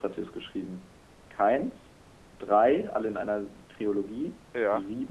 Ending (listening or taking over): listening